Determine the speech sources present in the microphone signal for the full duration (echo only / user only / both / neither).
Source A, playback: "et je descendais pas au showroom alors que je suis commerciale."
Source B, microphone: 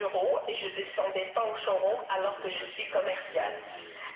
both